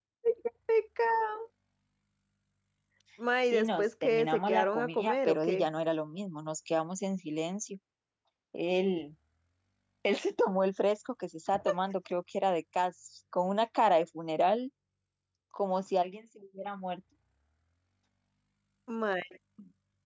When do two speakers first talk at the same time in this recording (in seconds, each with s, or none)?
3.5 s